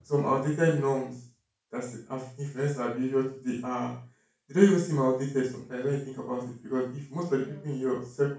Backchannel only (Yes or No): Yes